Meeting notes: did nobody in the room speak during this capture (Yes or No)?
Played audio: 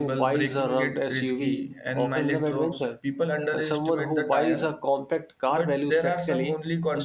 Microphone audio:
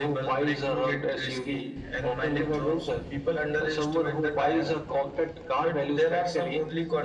Yes